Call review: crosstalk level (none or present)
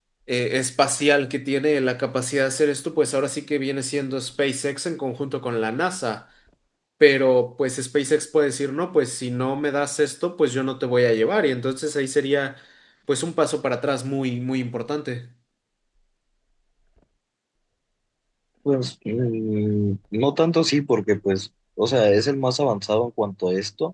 none